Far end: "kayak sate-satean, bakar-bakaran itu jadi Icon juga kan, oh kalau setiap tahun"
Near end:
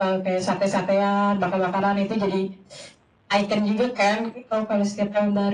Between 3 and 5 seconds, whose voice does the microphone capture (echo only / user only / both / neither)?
echo only